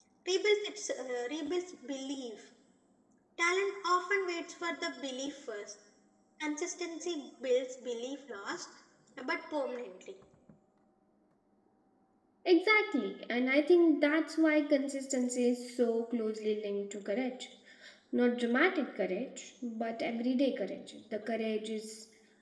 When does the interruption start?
none

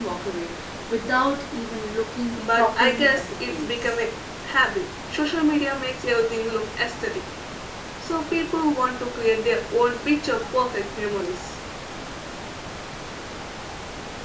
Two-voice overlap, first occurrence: 2 s

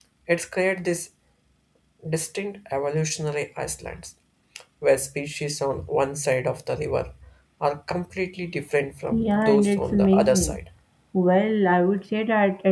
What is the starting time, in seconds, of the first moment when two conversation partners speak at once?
9 s

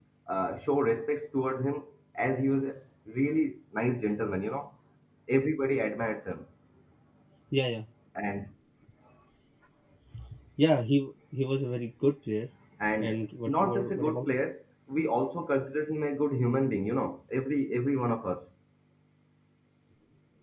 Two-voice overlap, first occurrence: 13 s

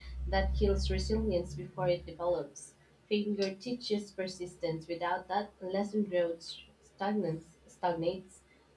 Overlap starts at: none

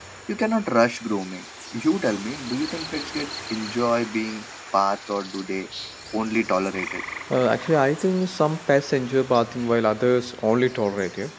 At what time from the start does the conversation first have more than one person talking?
none

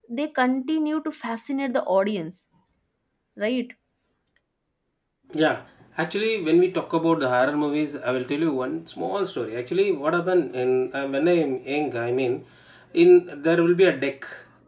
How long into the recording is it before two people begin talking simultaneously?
none

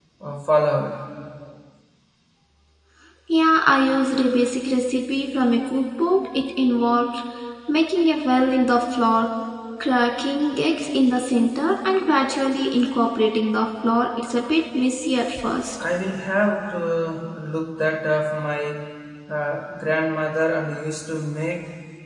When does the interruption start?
none

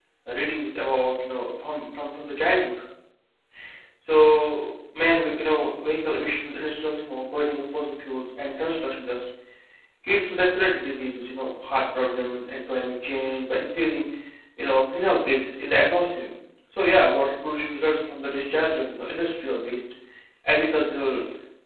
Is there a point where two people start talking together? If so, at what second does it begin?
none

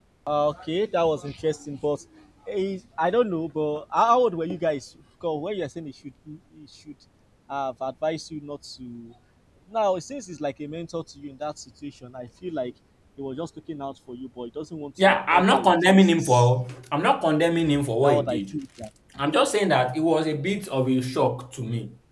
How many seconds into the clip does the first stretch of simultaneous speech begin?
15 s

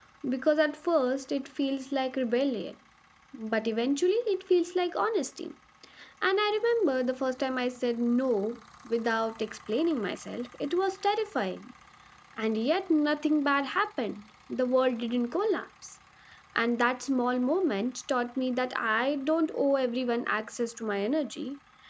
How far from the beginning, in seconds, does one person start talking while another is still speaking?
none

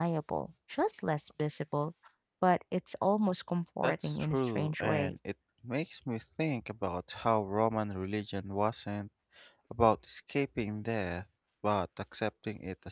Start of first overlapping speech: 4 s

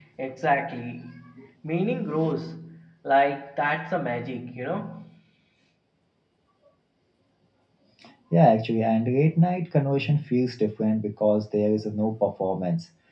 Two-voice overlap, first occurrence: none

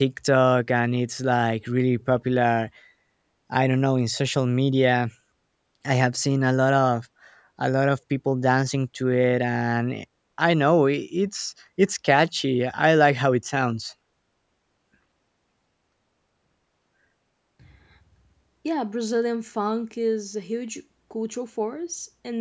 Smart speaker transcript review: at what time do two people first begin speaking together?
none

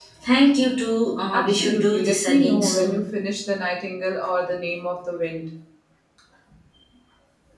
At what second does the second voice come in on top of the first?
1 s

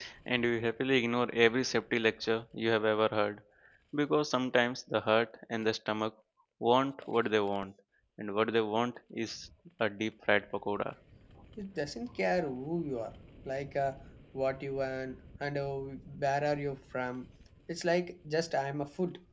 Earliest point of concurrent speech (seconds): none

